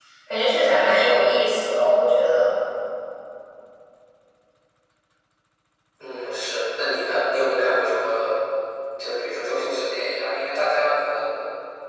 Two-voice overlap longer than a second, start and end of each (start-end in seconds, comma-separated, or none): none